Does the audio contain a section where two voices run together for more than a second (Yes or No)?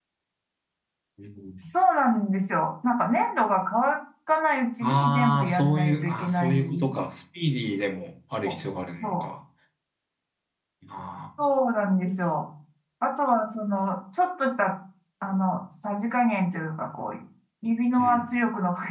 Yes